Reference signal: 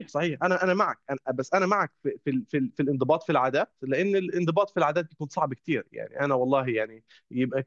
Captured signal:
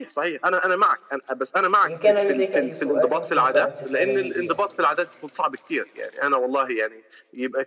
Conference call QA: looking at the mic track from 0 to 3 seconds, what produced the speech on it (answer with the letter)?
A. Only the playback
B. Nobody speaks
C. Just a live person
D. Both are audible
D